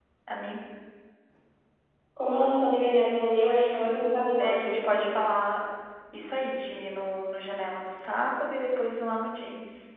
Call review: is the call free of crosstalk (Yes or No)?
No